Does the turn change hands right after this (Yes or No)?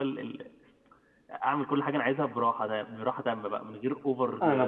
Yes